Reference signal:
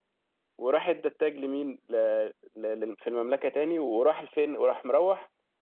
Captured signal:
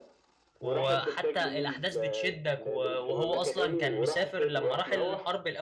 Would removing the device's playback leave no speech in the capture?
No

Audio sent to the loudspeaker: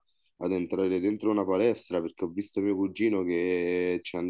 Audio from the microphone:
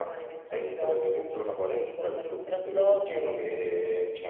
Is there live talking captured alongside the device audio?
Yes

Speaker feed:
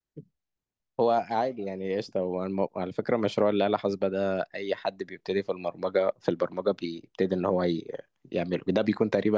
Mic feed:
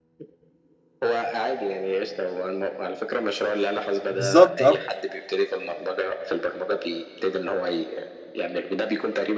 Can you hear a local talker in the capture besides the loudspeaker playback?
Yes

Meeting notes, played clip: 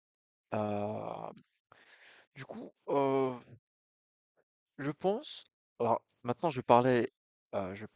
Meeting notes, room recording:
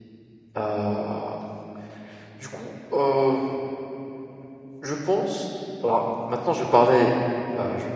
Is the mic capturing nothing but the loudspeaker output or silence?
Yes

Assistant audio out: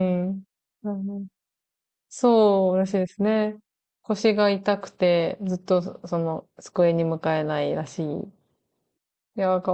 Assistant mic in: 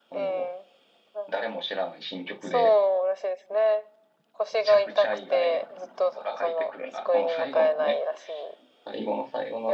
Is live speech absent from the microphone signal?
No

